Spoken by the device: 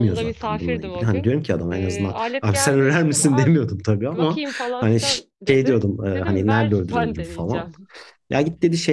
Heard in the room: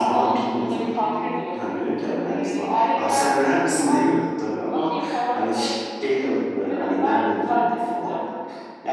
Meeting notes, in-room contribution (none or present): none